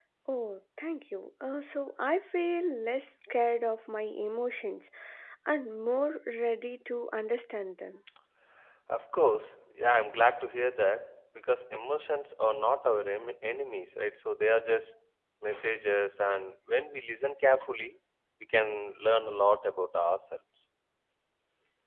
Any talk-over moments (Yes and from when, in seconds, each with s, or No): No